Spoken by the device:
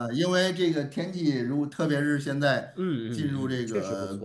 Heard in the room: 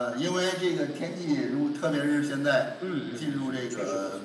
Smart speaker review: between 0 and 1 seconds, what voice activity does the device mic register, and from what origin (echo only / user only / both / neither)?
echo only